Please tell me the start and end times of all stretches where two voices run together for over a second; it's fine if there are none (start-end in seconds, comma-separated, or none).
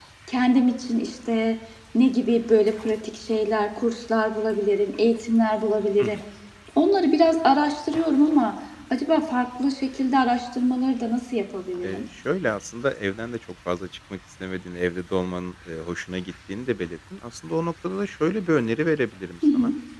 none